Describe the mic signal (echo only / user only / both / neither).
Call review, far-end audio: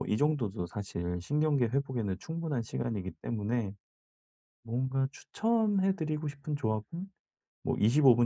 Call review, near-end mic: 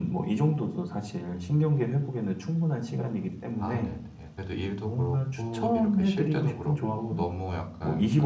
both